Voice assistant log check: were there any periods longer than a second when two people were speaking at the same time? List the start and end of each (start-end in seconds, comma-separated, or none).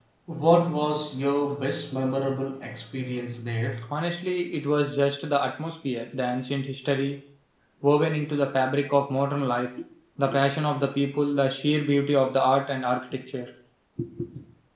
none